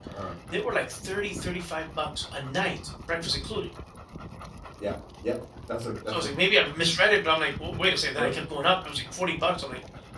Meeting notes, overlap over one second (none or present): none